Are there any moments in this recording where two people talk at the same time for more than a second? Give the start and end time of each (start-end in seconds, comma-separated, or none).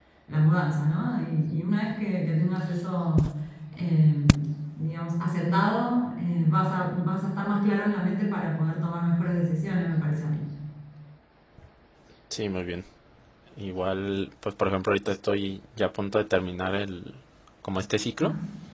none